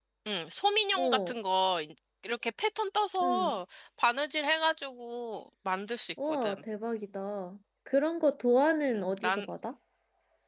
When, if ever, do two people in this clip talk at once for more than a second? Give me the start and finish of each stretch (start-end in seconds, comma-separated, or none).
none